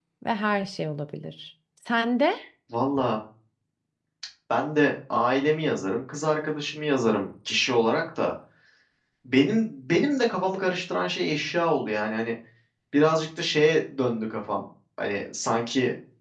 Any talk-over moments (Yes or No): No